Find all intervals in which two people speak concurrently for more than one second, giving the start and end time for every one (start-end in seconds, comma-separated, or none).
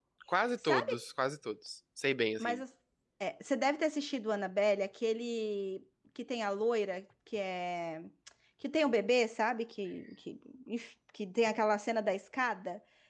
none